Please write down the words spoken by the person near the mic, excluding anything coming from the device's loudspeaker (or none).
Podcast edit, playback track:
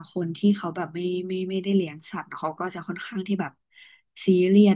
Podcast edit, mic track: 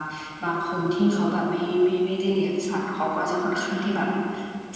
none